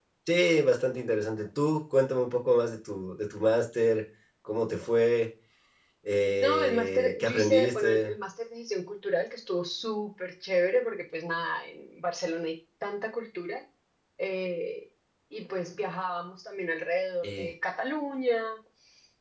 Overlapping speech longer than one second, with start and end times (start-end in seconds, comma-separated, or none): 6.4-8.1